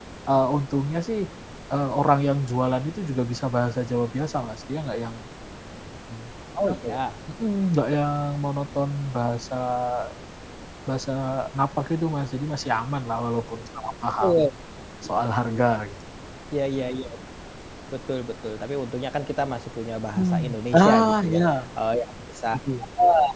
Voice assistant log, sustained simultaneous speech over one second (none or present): present